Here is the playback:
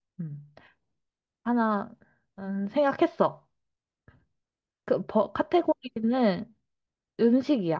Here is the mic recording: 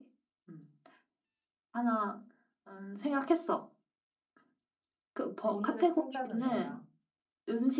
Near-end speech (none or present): present